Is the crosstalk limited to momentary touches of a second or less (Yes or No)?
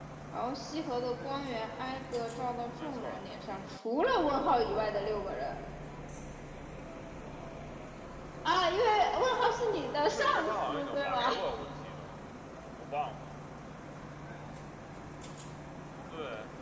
No